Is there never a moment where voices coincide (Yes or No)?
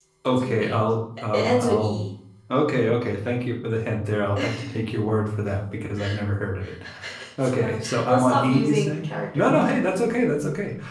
No